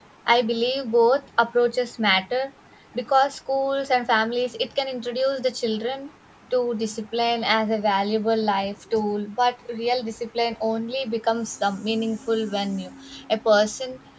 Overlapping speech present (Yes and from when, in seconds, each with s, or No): No